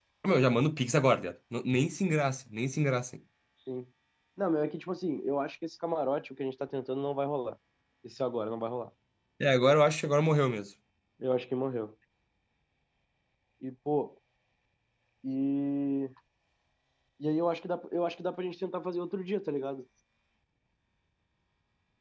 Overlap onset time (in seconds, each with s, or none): none